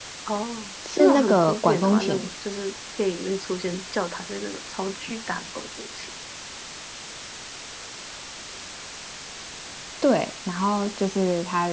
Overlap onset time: 1.0 s

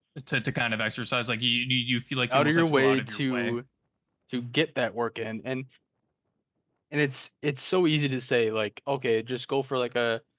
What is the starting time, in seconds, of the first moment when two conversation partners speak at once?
2.3 s

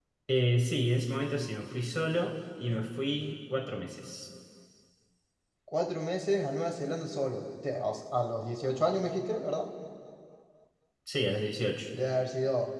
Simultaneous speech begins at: none

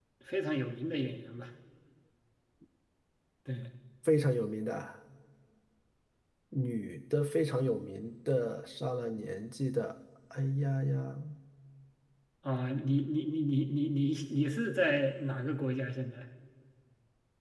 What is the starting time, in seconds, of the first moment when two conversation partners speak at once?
none

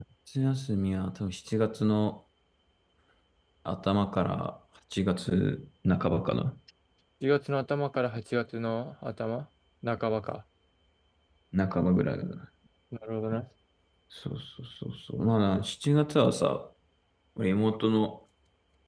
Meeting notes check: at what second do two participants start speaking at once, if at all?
none

